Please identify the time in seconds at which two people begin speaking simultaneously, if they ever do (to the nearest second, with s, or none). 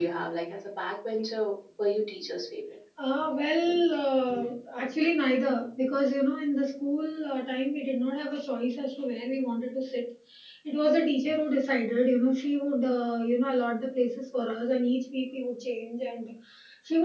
none